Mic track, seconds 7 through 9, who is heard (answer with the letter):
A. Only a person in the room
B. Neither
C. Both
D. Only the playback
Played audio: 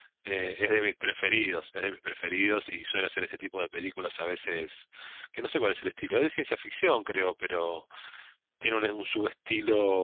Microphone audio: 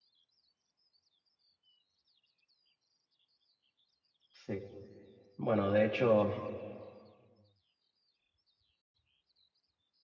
B